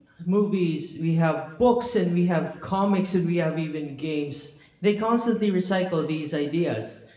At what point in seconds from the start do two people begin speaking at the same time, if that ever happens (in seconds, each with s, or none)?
none